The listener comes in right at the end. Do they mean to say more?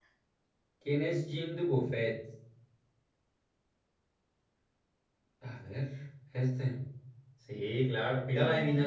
No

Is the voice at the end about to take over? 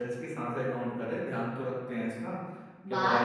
Yes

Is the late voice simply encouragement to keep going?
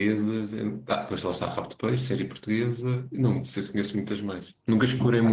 No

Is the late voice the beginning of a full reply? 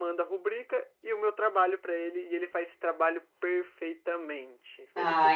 Yes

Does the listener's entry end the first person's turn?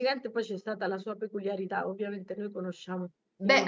Yes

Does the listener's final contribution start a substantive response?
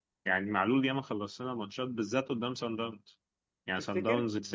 No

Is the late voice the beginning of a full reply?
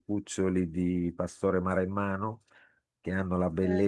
No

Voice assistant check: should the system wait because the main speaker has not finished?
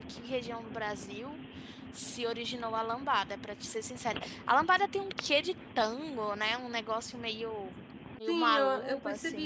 No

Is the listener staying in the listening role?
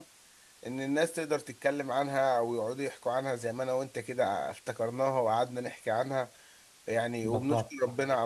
Yes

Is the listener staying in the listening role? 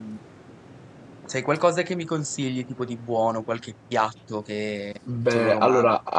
No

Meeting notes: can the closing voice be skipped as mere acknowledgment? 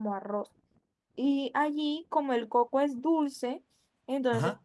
Yes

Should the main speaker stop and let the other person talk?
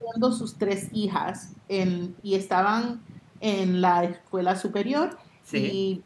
No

